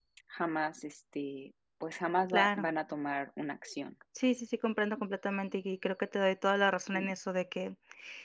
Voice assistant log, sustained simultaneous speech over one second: none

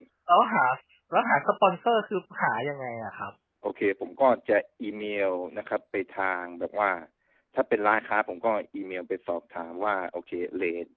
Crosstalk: none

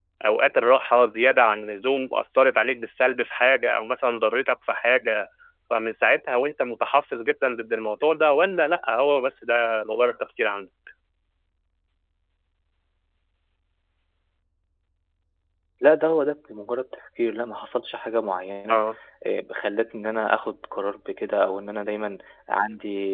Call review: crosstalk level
none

